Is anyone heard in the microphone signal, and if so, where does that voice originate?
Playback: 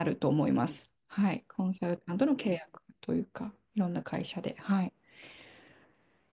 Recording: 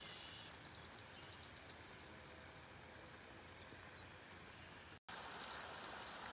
neither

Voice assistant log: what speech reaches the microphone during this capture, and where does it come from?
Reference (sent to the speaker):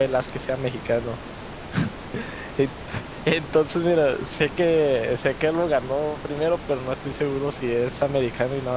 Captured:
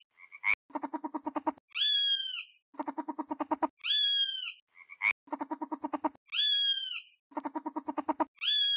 neither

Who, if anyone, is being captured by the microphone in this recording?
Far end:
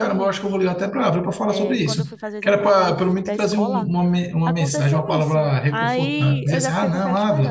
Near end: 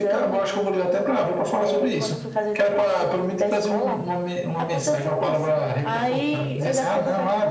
echo only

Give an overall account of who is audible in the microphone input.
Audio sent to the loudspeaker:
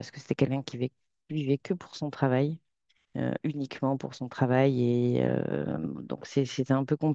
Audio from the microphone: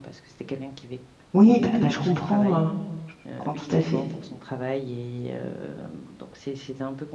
both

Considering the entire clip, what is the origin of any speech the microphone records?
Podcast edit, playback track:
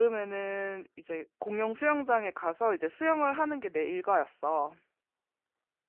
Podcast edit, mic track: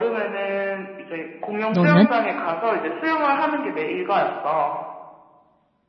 both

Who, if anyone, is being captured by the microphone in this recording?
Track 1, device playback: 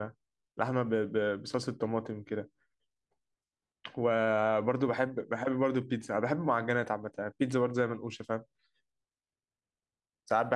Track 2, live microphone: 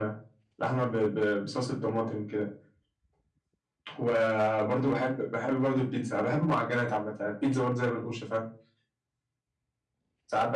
echo only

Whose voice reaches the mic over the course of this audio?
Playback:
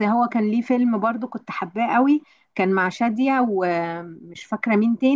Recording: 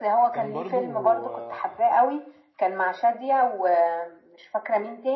both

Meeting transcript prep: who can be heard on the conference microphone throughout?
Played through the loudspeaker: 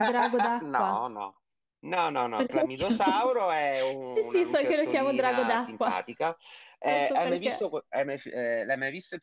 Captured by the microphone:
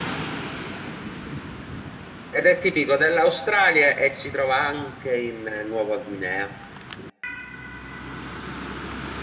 user only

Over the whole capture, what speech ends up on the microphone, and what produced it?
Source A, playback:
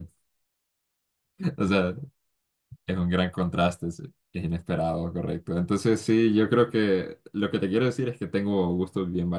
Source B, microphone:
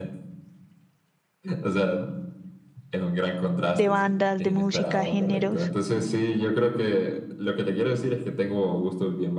both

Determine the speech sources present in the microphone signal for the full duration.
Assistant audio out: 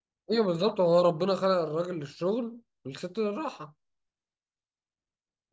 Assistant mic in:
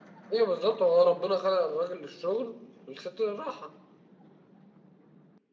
echo only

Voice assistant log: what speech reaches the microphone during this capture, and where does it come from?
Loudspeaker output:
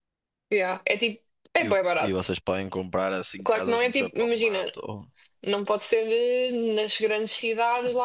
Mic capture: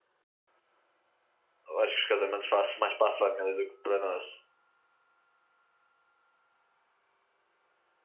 user only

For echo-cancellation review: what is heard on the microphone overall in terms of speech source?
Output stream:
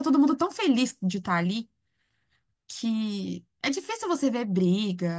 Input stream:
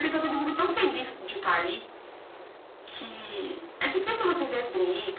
echo only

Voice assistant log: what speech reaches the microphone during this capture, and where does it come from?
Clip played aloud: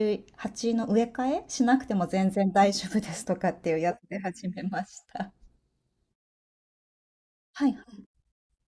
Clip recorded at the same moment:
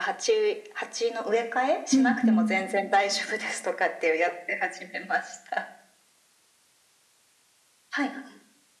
both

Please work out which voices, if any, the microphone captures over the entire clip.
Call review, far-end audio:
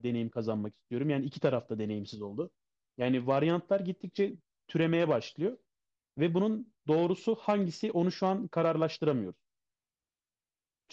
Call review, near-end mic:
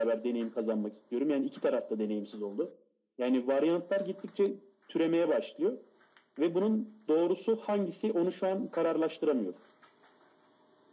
echo only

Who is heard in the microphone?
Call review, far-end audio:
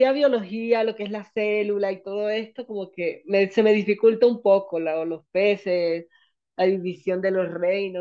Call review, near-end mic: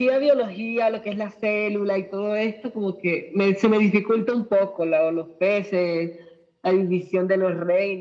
echo only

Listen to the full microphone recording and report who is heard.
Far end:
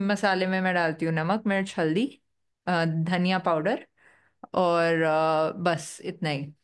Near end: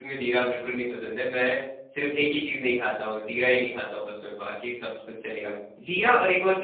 user only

